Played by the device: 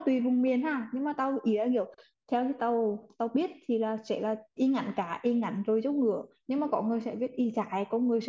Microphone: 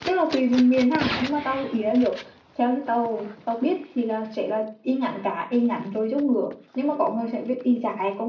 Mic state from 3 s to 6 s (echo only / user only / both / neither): echo only